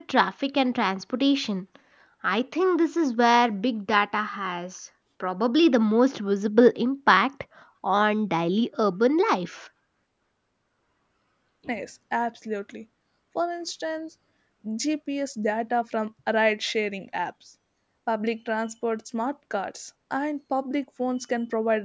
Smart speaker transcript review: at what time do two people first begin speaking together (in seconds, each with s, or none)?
none